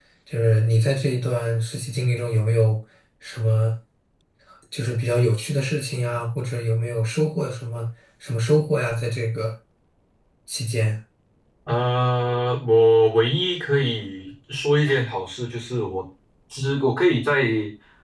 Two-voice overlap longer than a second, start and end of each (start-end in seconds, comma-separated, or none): none